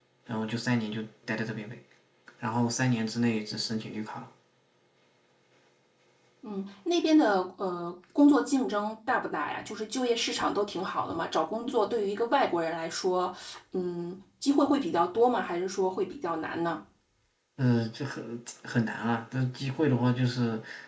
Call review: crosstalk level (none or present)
none